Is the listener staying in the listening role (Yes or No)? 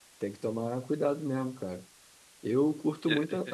Yes